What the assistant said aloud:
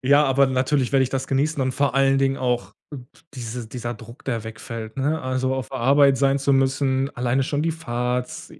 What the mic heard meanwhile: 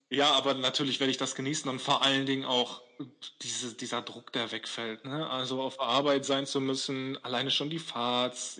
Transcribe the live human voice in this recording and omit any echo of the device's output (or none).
none